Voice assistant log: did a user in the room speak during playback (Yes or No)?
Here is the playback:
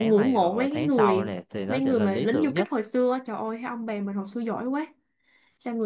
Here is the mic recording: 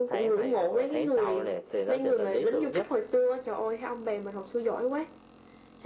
No